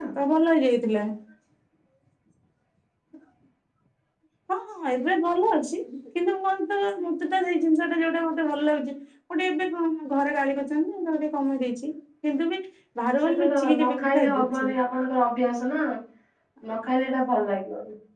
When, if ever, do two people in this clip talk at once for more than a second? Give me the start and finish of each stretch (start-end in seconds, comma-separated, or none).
13.2-14.7